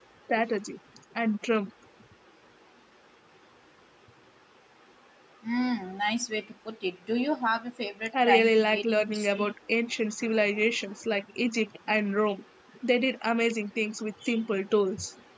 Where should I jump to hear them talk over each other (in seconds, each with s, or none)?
8.1 s